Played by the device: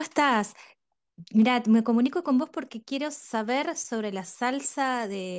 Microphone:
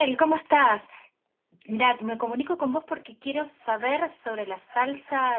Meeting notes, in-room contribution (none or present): none